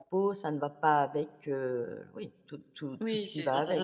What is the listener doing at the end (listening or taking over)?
taking over